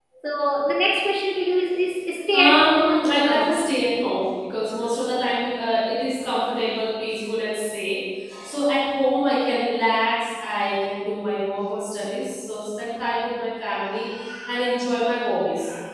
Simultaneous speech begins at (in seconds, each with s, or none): 2.3 s